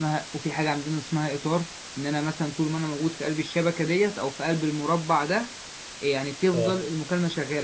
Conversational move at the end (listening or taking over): listening